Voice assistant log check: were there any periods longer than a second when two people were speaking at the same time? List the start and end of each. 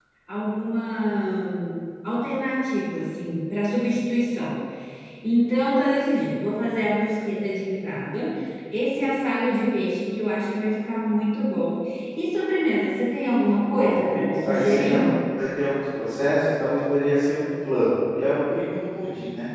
13.7-15.0

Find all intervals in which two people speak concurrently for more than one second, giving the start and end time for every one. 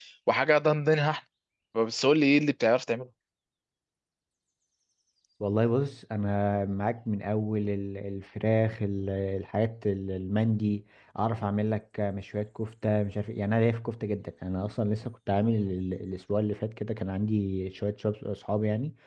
none

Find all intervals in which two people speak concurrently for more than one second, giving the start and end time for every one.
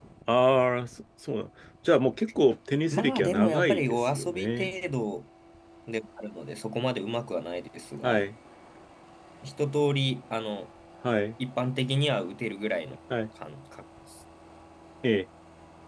2.9-4.7

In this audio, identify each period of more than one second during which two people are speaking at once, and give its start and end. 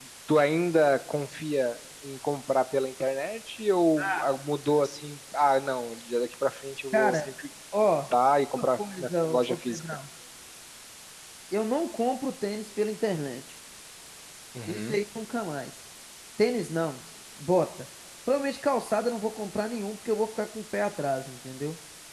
8.5-9.8

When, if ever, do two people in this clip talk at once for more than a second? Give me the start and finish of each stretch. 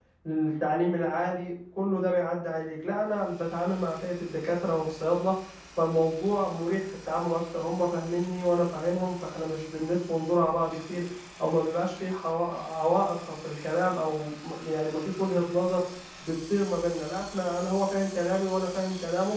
none

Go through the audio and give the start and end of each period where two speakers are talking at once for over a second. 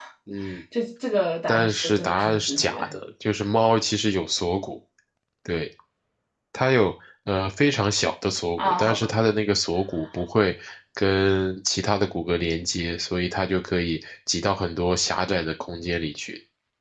1.5-2.9

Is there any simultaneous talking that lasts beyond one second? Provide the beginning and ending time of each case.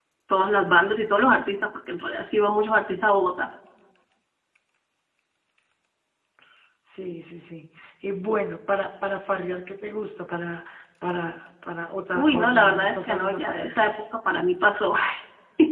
12.1-14.0

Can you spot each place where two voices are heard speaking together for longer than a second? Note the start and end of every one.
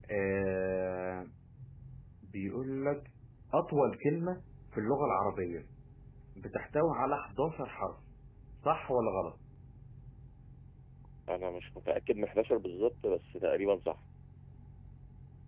none

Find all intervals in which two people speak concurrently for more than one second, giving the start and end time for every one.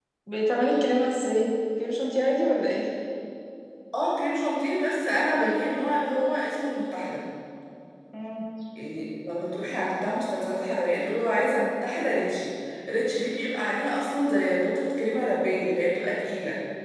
none

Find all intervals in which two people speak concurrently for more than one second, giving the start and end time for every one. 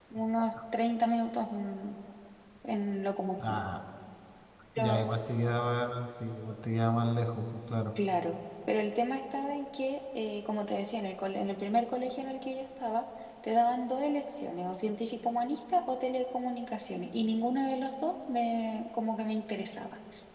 none

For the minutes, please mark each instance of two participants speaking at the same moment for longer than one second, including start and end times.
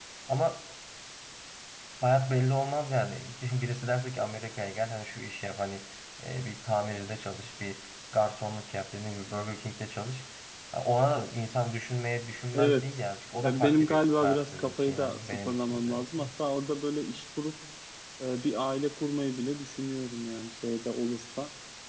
13.4-16.3

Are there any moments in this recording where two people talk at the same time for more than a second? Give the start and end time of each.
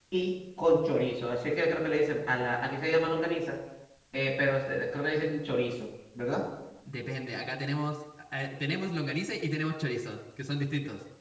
none

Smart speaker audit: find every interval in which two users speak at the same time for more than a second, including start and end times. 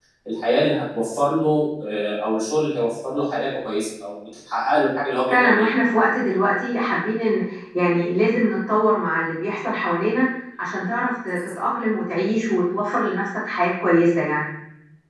none

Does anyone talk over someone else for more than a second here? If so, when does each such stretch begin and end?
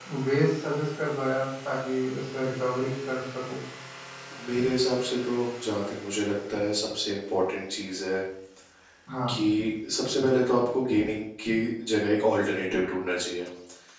none

